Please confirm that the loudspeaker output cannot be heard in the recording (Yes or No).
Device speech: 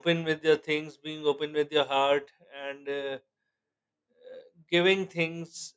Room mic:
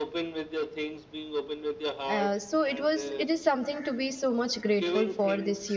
No